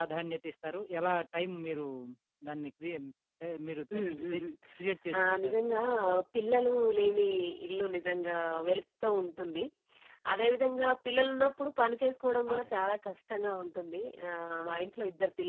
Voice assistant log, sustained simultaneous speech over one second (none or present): none